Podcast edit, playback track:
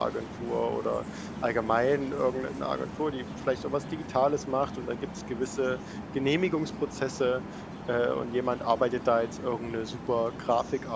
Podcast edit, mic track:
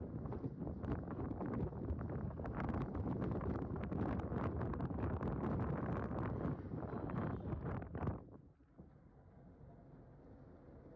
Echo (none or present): none